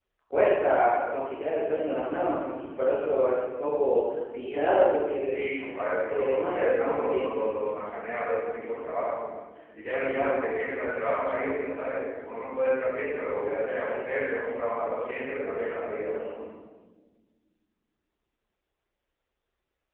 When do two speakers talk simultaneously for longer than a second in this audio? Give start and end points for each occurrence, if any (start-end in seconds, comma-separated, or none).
6.1-7.3